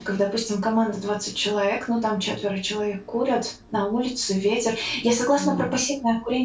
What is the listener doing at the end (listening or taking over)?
listening